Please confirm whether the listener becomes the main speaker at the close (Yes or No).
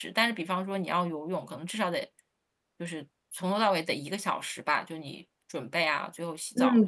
Yes